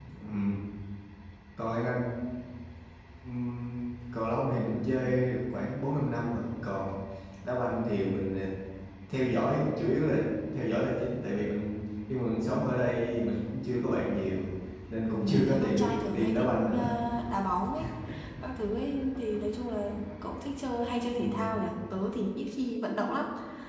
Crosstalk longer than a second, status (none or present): present